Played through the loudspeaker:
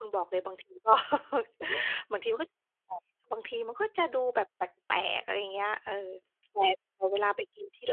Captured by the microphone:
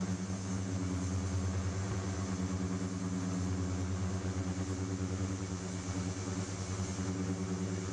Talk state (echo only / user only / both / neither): neither